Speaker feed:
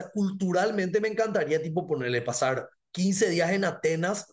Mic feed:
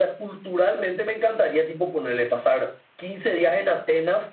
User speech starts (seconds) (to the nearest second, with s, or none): none